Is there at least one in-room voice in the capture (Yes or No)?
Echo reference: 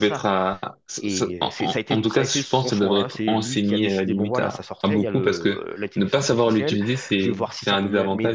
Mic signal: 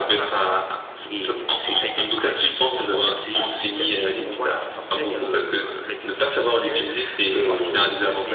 Yes